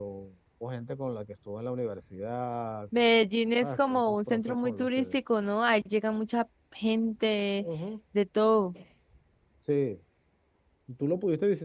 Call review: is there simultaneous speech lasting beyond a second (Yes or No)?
Yes